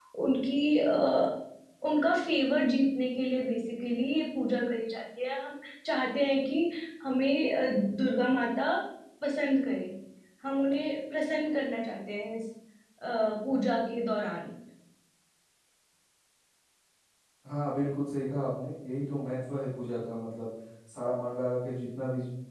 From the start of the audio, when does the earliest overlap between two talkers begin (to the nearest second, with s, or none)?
none